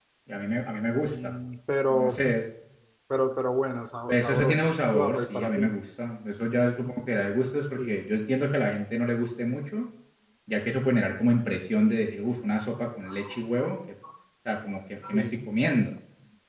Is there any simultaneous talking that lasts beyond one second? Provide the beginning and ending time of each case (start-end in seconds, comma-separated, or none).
4.1-5.7